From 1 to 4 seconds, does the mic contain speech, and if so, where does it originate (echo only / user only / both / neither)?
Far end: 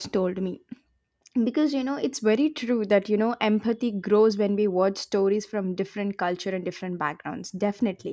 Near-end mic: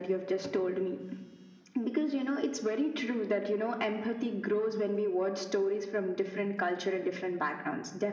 echo only